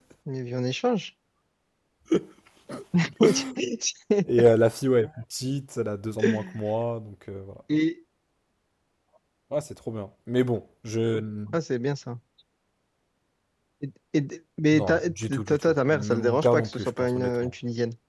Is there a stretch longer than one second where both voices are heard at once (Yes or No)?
Yes